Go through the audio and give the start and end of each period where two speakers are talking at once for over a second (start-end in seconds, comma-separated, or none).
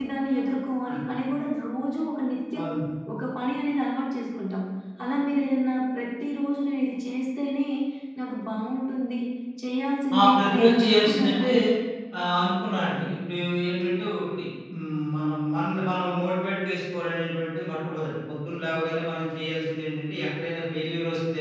10.2-11.4